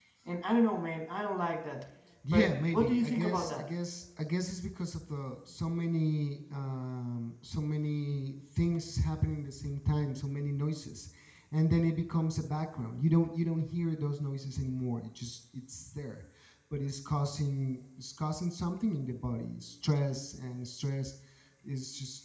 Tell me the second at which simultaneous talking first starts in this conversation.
2.2 s

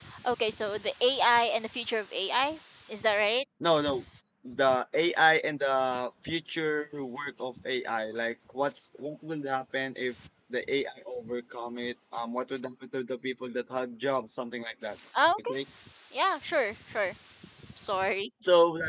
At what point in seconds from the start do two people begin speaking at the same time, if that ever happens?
none

